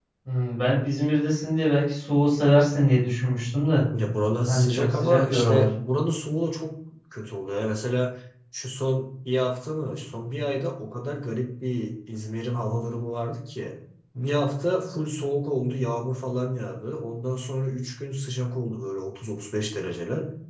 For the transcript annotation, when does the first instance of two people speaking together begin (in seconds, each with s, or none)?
4.5 s